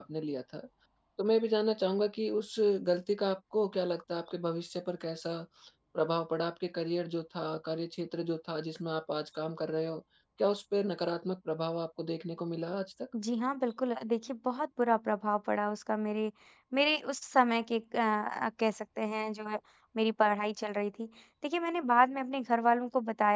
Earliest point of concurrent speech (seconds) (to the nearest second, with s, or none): none